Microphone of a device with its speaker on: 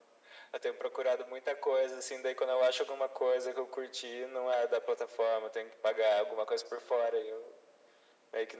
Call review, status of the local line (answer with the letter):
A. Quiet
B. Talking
A